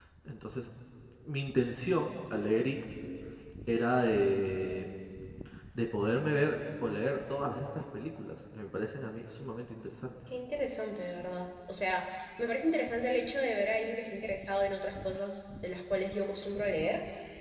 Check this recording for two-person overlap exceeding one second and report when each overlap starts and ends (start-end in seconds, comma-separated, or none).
none